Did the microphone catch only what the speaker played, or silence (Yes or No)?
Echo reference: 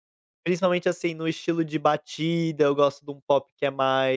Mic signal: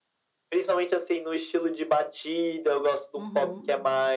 No